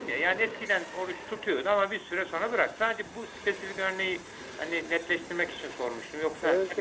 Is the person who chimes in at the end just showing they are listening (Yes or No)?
No